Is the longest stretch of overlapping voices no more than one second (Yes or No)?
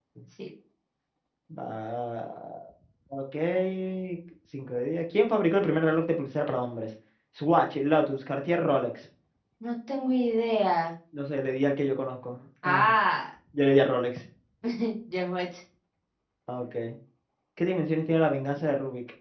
Yes